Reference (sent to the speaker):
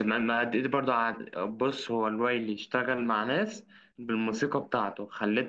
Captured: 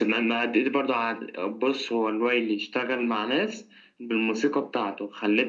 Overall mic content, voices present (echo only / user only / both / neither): echo only